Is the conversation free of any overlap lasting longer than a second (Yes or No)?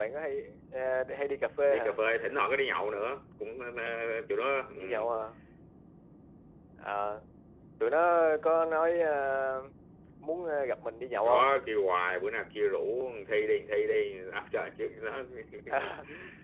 Yes